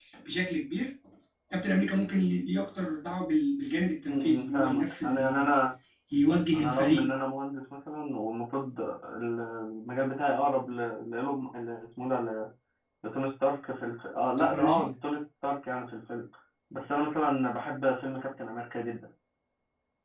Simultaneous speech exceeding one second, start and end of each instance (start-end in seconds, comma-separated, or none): 4.1-5.5